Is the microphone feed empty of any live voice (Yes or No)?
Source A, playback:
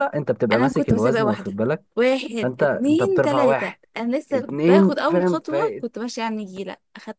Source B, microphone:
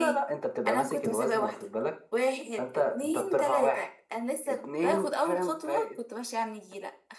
Yes